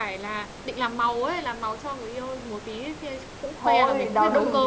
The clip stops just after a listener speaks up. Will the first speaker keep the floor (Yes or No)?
No